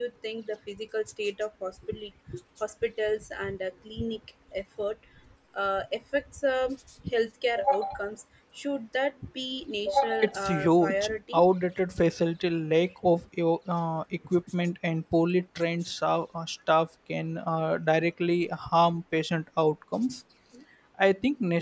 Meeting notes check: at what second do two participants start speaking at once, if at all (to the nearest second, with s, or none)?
10 s